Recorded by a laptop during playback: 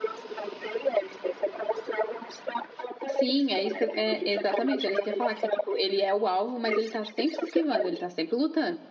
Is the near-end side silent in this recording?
No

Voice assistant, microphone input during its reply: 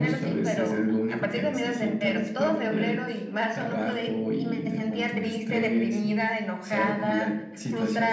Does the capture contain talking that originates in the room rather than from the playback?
No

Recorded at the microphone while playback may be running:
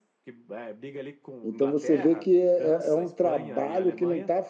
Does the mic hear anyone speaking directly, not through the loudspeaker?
Yes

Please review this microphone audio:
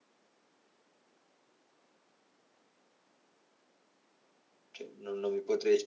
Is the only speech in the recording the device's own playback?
No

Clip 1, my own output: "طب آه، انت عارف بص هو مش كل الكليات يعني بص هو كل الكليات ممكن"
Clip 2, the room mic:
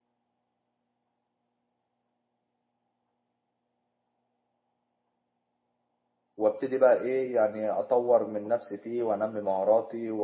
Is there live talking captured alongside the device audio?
Yes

